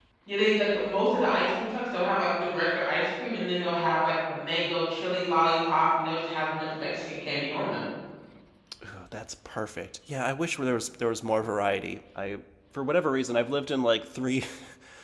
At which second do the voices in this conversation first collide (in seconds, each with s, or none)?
none